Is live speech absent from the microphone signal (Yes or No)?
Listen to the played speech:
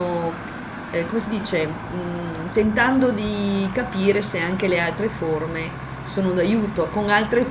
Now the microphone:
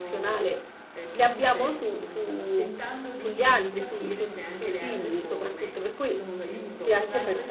No